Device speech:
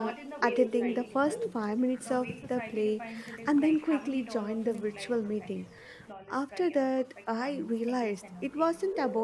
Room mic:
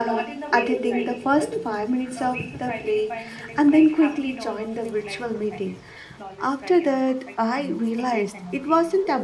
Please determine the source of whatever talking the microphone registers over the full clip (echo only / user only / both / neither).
echo only